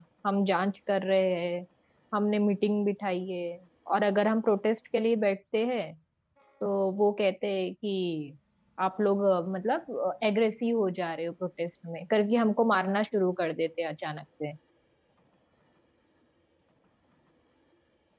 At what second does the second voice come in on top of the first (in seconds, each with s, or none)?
none